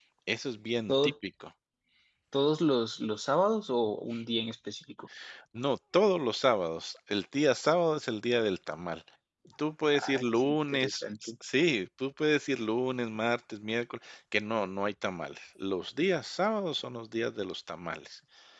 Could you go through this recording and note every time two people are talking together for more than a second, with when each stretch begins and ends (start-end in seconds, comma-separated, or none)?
9.9-11.3